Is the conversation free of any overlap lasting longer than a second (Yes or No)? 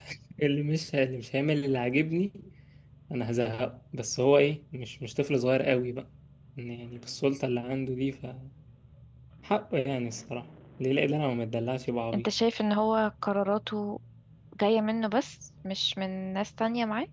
Yes